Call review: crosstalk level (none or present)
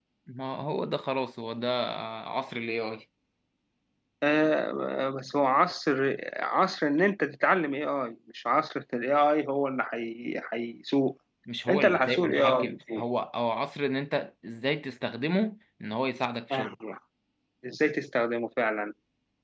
present